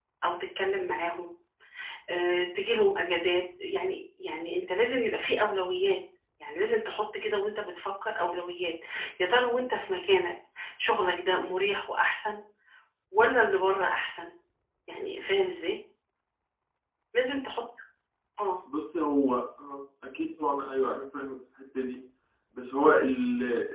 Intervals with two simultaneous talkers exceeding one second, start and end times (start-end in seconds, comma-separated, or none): none